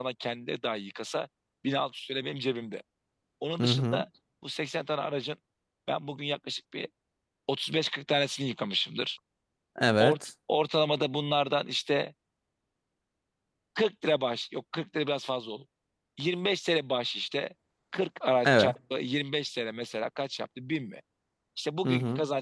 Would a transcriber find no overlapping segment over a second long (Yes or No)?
Yes